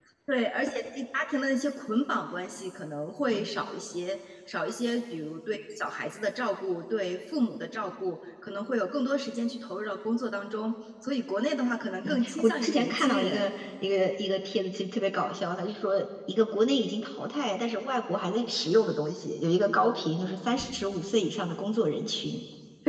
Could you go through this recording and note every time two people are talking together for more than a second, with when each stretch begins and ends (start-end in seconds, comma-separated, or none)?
12.0-13.5